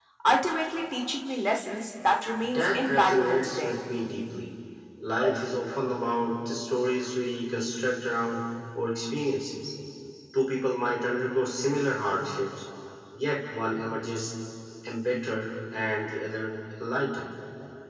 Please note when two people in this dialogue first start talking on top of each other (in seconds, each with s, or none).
2.4 s